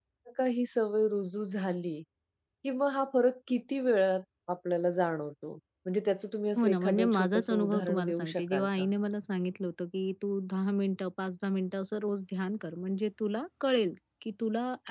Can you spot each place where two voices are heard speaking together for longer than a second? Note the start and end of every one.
6.6-8.9

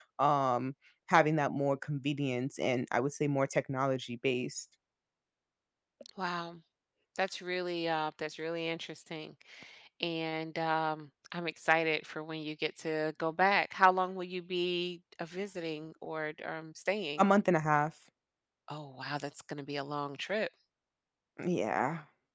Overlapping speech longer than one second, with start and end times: none

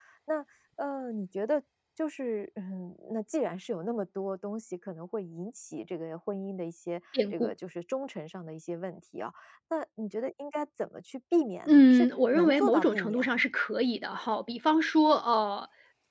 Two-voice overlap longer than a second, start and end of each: 11.6-13.4

